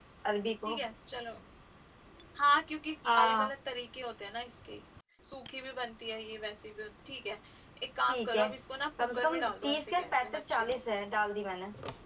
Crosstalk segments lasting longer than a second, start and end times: 9.0-10.8

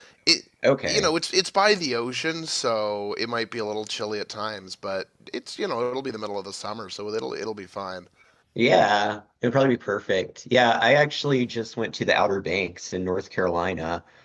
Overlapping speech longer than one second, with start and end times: none

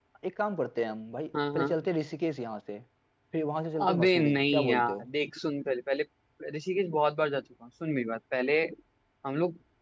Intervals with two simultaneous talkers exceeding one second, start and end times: 3.8-5.1

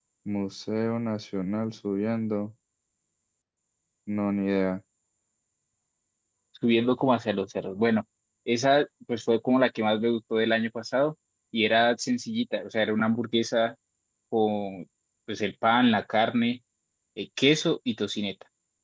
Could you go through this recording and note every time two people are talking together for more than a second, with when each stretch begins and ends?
none

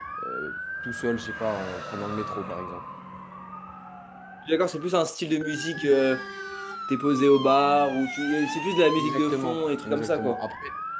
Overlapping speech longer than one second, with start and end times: 9.0-10.4

